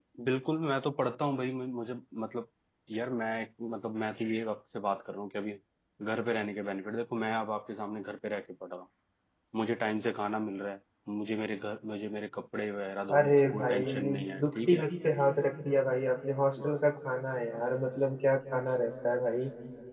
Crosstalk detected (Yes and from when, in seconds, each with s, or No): Yes, from 13.1 s